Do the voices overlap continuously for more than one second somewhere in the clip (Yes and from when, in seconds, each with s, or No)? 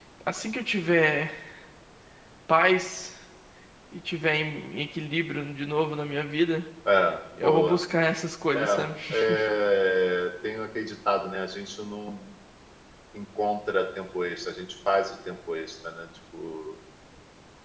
No